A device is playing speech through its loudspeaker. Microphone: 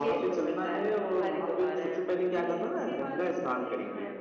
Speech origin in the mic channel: both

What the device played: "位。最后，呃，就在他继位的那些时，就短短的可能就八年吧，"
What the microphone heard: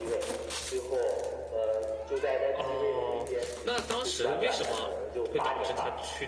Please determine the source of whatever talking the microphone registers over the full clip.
both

